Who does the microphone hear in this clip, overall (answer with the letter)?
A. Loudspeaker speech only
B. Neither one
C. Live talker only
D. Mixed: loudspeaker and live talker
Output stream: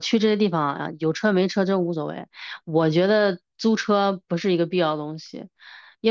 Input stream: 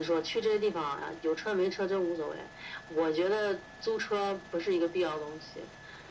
A